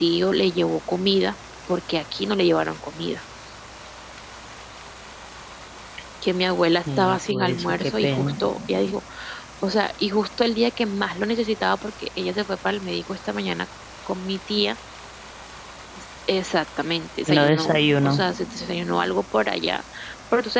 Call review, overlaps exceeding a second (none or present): present